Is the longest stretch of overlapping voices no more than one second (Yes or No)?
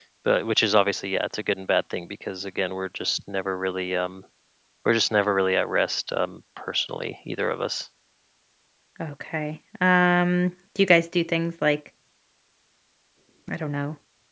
Yes